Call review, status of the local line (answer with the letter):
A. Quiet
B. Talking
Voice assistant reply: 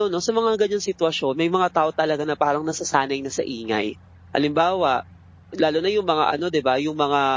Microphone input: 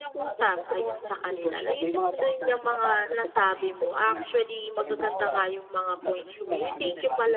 B